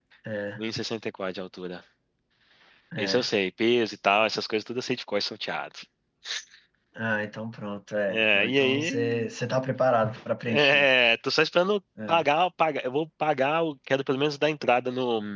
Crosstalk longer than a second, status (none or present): present